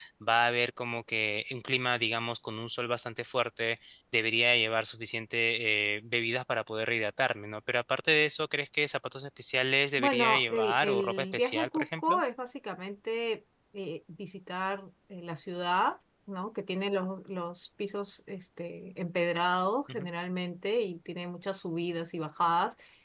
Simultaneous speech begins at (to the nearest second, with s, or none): 10 s